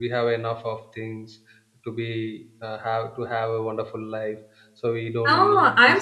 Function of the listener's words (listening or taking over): taking over